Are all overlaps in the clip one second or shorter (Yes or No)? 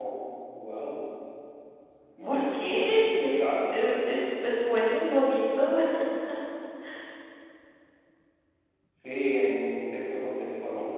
Yes